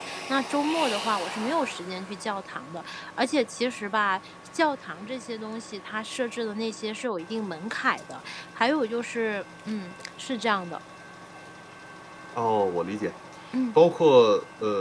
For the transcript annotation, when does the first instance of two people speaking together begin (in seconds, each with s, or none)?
none